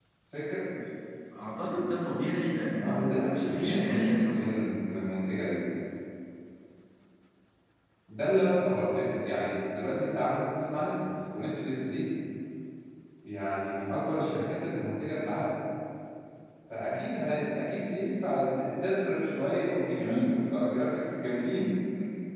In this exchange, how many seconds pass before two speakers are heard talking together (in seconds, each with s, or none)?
2.8 s